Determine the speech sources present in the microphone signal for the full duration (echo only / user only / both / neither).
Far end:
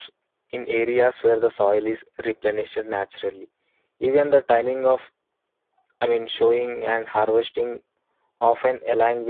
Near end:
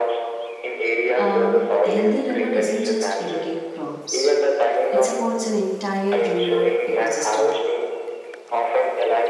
both